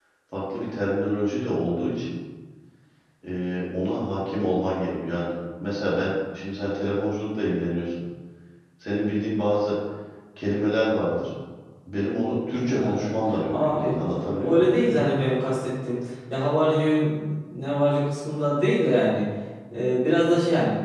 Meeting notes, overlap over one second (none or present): present